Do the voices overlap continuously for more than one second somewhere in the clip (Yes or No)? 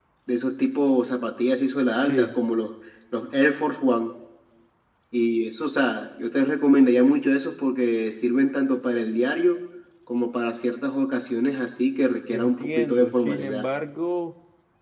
Yes